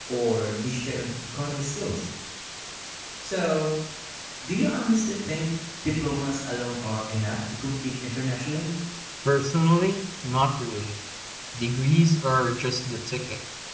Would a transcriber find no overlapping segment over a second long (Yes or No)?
Yes